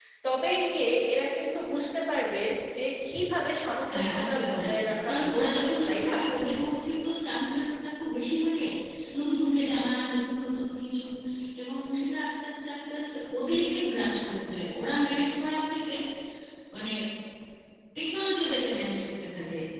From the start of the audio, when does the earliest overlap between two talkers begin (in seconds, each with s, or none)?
3.9 s